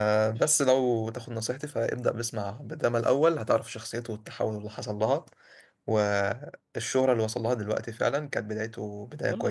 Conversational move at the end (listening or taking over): taking over